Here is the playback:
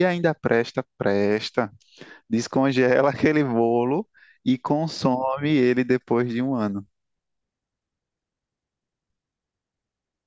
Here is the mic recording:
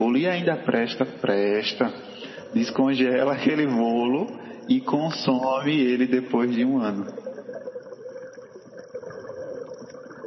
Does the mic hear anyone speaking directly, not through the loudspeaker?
No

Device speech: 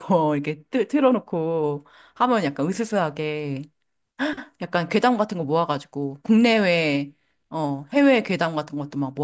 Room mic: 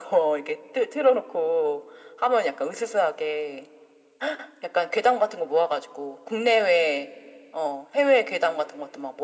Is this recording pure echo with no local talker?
Yes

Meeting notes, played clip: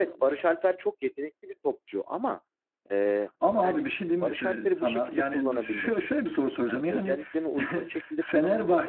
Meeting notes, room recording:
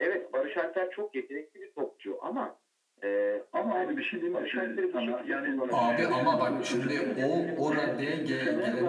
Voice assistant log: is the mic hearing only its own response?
No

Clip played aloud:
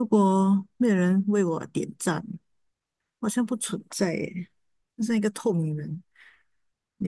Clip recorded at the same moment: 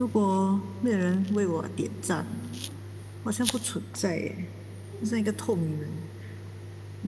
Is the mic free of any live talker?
Yes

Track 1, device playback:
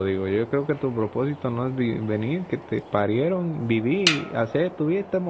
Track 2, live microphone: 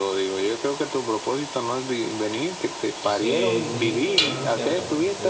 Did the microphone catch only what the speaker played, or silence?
No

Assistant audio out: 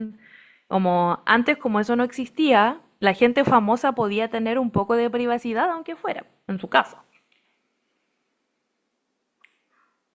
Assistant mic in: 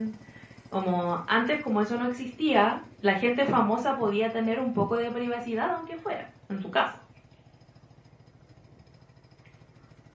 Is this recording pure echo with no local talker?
Yes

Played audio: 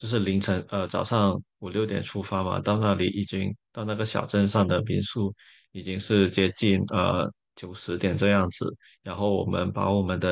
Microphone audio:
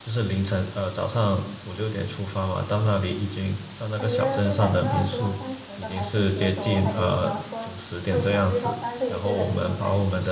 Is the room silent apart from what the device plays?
No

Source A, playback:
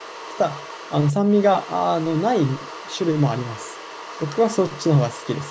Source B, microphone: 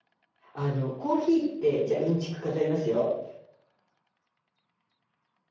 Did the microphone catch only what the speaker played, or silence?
No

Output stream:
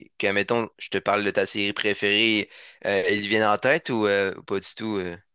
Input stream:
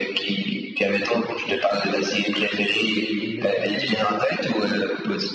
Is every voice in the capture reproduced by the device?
No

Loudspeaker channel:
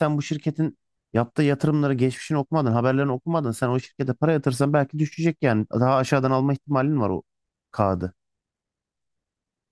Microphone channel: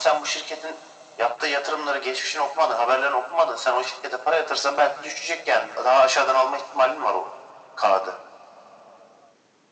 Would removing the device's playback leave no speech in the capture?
Yes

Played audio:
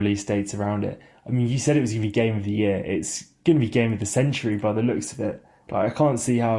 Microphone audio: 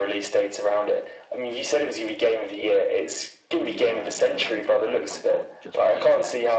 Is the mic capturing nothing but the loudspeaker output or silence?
No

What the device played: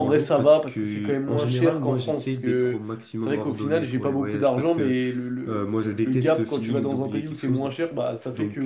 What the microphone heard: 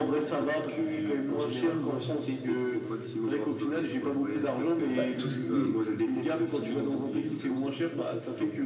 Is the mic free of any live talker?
No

